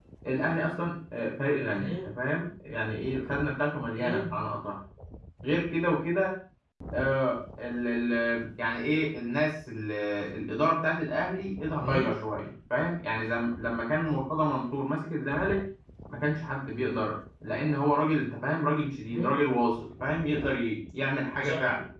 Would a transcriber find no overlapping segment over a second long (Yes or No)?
Yes